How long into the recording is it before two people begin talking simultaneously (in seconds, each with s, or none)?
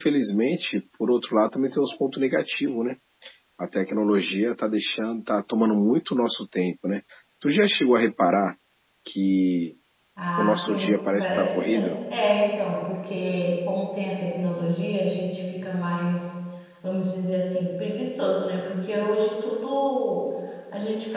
10.4 s